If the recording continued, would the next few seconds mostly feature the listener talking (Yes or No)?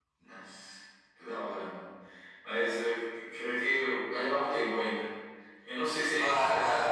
Yes